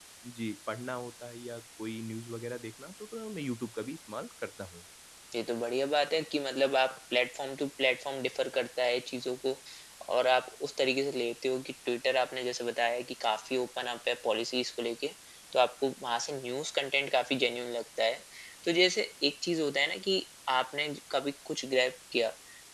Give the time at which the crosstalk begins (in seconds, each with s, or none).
none